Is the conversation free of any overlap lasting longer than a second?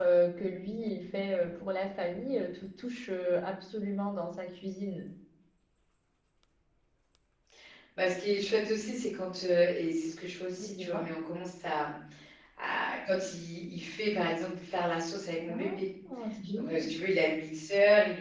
Yes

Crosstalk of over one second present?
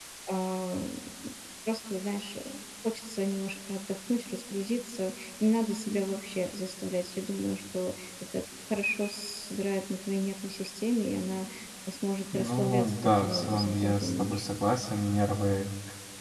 Yes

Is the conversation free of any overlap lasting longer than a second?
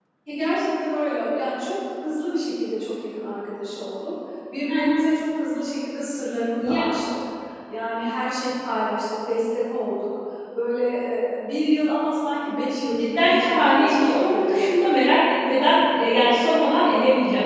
No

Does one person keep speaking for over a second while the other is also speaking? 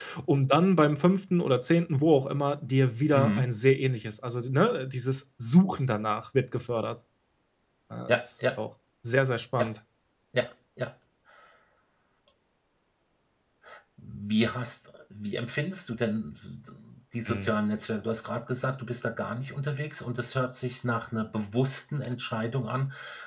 No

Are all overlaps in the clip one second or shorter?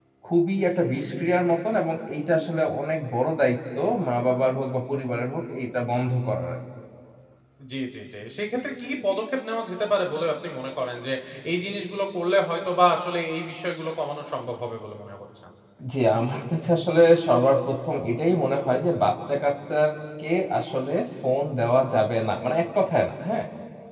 Yes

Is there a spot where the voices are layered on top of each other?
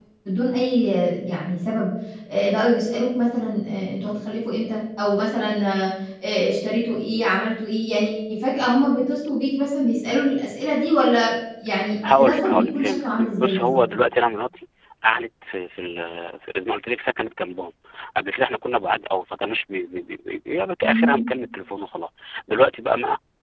Yes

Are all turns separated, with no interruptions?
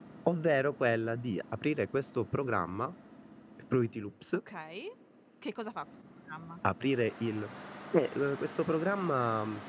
Yes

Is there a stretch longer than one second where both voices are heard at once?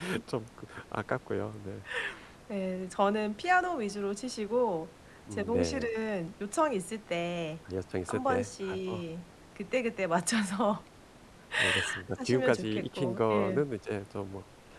Yes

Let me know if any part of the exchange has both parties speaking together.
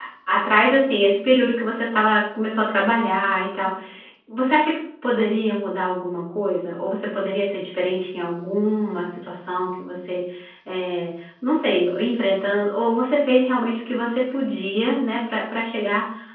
No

